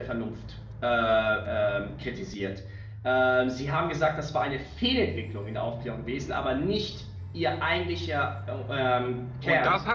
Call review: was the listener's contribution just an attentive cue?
No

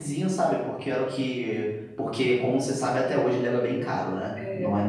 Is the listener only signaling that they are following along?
Yes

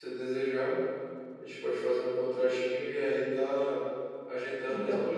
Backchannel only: Yes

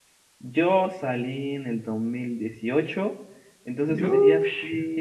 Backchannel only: Yes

